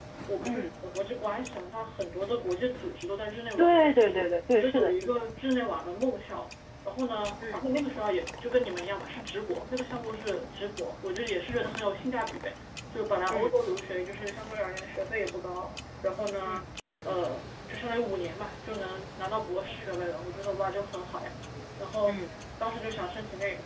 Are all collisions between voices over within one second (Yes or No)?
Yes